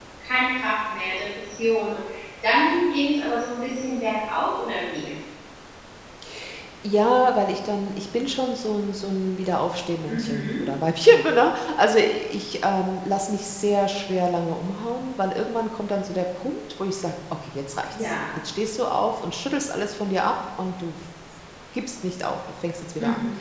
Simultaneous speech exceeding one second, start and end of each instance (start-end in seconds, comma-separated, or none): none